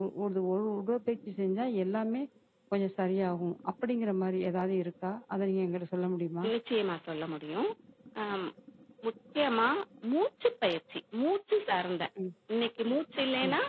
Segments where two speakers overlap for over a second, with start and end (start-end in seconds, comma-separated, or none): none